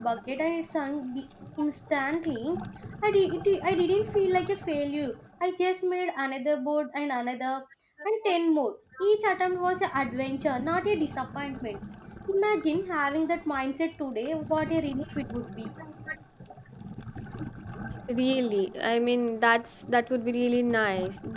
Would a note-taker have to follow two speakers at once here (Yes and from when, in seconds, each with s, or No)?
No